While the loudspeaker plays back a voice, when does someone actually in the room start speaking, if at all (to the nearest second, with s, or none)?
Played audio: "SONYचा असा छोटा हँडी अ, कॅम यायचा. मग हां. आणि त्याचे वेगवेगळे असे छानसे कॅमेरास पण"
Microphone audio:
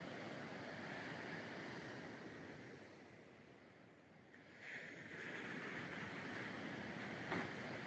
none